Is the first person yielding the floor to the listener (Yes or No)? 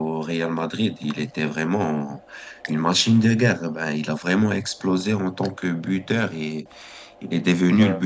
No